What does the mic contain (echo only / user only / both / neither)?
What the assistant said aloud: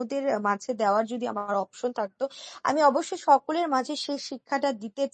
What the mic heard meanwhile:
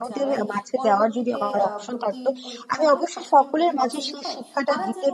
both